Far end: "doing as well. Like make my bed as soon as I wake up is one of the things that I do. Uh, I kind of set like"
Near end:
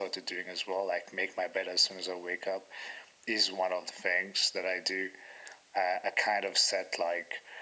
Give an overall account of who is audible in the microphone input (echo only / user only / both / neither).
echo only